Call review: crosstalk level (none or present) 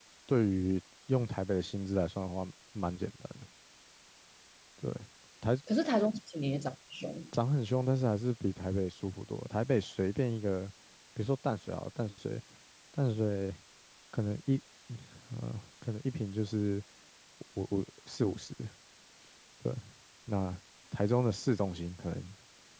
none